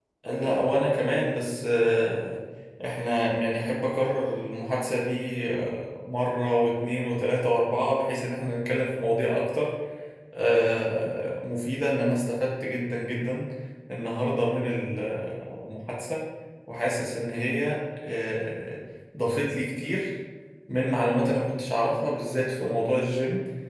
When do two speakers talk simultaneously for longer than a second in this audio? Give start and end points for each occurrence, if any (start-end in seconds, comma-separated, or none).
none